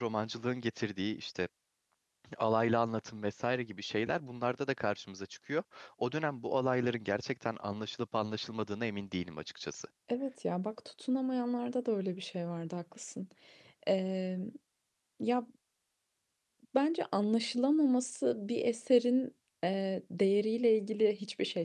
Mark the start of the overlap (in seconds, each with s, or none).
none